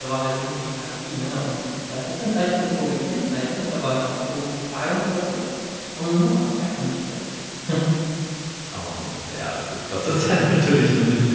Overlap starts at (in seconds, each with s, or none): none